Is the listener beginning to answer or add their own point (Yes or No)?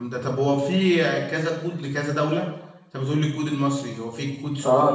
Yes